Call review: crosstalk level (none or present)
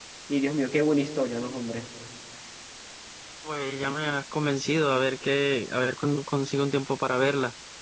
none